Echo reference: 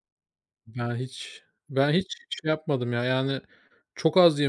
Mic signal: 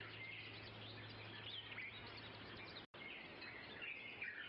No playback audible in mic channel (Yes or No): Yes